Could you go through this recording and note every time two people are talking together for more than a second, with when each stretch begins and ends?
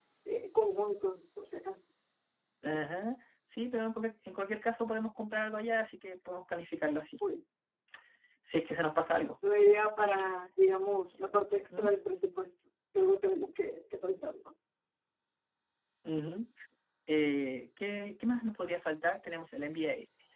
none

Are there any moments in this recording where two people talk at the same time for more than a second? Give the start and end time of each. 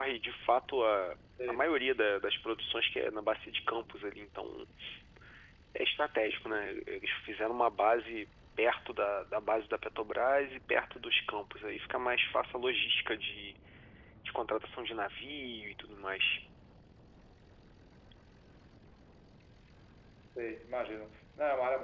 none

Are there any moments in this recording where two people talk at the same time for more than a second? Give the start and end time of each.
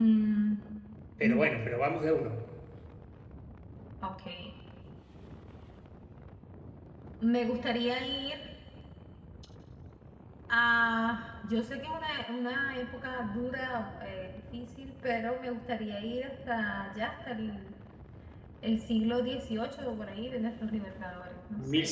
none

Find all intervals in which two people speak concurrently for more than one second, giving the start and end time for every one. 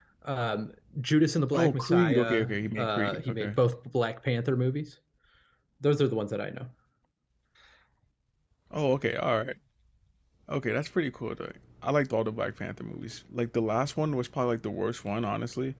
1.5-3.5

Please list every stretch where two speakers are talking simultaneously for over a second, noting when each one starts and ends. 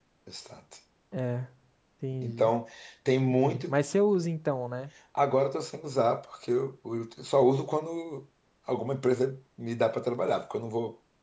none

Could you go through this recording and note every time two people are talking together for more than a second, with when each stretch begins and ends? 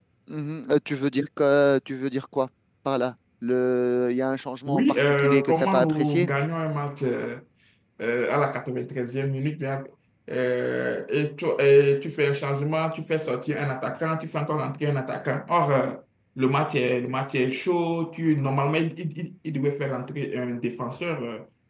4.7-6.3

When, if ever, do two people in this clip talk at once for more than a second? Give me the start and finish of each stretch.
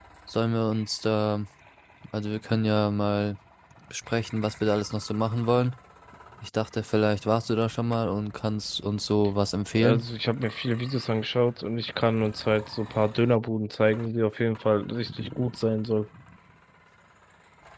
none

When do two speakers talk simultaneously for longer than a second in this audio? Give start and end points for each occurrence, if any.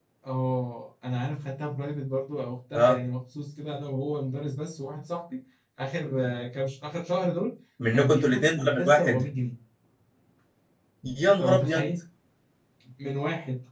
7.9-9.2

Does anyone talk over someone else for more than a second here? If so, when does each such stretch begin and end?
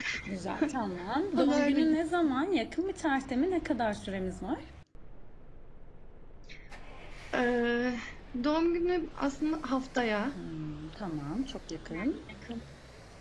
none

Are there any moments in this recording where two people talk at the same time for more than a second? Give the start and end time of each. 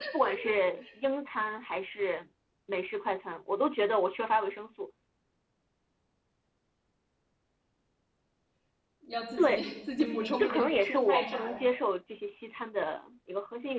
10.0-11.6

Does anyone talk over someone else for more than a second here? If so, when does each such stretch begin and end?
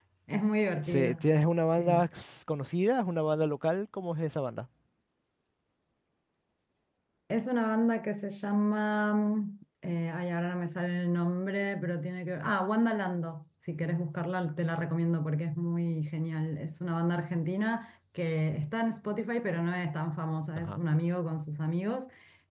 none

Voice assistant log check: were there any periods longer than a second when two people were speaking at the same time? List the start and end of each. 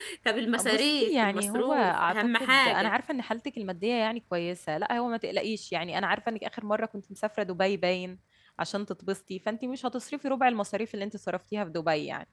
0.6-2.9

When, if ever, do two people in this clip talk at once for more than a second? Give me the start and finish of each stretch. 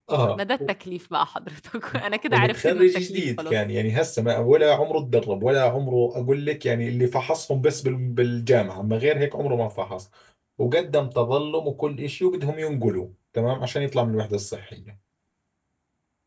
2.3-3.6

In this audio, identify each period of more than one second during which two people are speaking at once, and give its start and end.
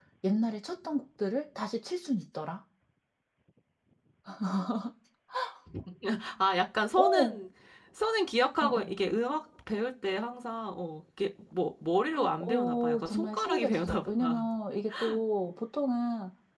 12.4-14.4

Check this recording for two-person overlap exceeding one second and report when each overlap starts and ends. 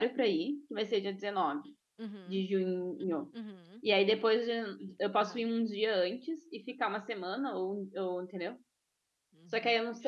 none

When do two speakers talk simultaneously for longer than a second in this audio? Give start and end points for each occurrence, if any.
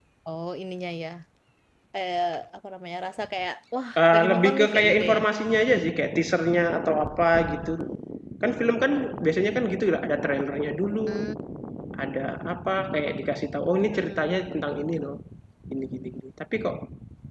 4.0-5.2

